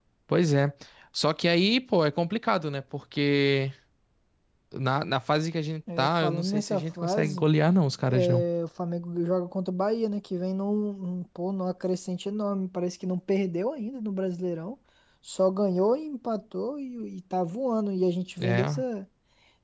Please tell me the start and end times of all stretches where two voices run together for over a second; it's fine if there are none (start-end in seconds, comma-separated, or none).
6.0-7.5